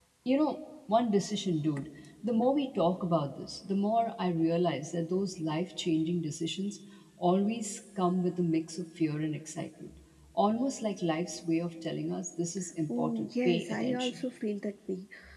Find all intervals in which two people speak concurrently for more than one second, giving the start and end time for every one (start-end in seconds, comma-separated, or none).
13.0-14.2